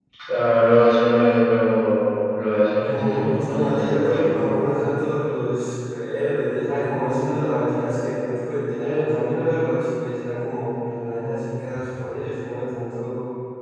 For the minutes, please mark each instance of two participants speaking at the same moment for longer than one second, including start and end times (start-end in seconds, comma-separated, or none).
2.8-4.5